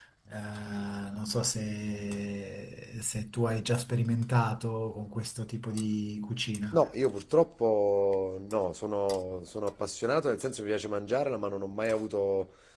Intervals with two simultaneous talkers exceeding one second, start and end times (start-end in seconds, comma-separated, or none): none